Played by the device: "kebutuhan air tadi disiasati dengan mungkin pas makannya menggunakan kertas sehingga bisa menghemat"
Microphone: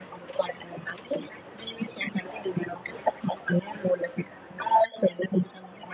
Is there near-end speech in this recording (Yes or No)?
No